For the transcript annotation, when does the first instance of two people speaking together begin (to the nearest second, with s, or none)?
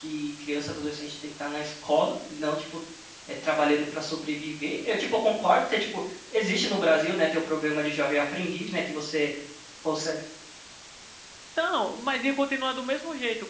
none